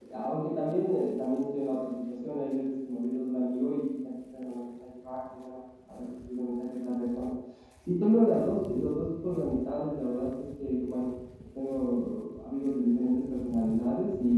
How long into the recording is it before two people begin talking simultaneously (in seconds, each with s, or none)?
none